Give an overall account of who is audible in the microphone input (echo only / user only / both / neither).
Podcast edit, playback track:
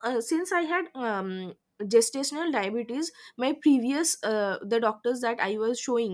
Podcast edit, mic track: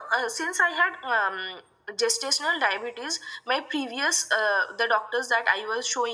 echo only